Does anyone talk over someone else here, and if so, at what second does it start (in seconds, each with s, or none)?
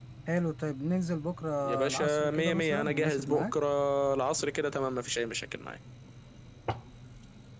1.9 s